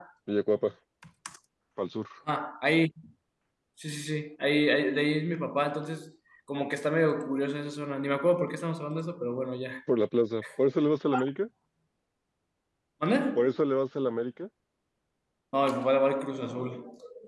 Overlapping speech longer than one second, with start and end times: none

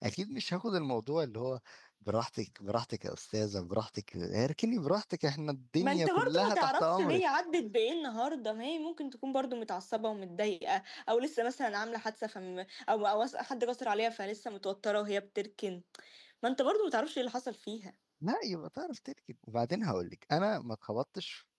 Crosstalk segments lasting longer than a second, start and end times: 5.8-7.2

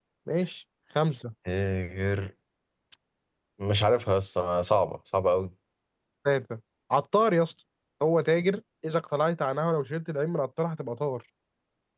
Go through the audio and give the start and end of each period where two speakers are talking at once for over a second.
none

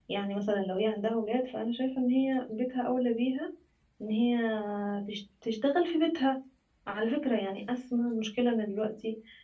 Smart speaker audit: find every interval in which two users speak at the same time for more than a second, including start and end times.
none

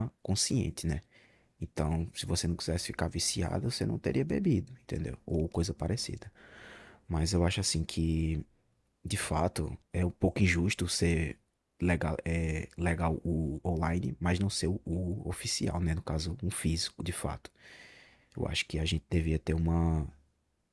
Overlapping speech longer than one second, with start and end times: none

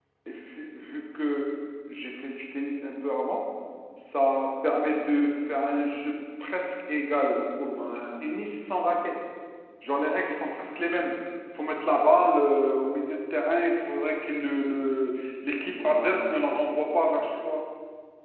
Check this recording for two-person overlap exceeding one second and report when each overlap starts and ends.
15.7-17.2

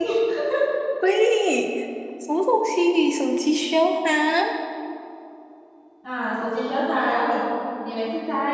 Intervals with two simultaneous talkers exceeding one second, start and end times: none

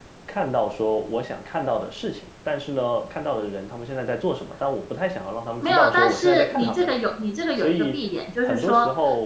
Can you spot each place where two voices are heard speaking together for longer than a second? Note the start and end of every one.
5.6-6.9

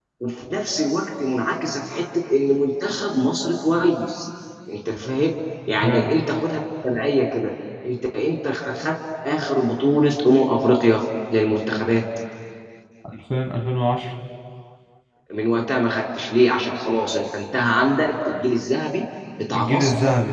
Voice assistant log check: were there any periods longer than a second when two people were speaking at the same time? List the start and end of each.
none

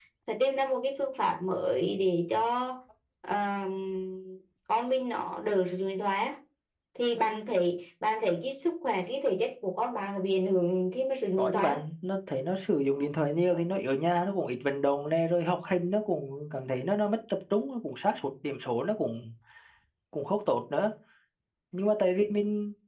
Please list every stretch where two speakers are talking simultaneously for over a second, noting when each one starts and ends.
none

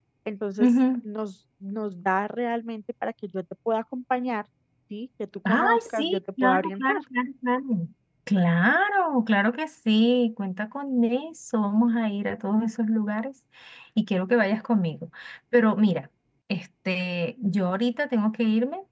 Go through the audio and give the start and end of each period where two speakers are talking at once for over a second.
5.5-7.0

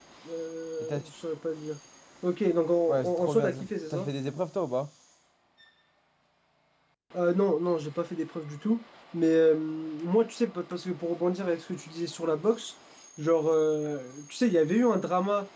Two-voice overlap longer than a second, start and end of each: 2.9-4.1

